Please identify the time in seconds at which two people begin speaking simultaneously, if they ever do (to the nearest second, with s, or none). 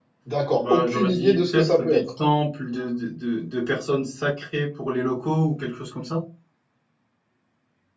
1 s